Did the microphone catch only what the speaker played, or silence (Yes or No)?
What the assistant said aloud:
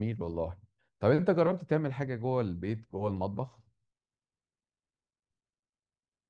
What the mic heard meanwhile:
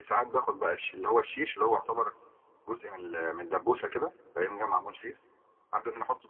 No